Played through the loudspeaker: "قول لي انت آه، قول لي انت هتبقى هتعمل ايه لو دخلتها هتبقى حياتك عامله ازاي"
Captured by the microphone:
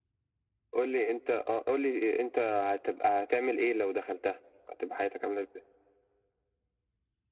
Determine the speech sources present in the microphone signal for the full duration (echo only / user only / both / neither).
echo only